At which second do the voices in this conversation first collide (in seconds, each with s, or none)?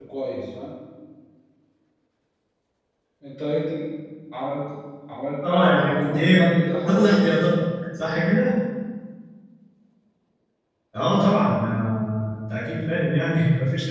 5.4 s